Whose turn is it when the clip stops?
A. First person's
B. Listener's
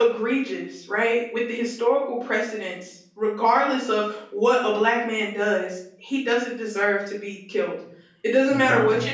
A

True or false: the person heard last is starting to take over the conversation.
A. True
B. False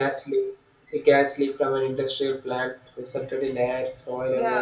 B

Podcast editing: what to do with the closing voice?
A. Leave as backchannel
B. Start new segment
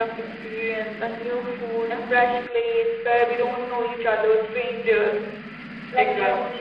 A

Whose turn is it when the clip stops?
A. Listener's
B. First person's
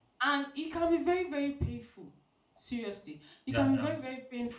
B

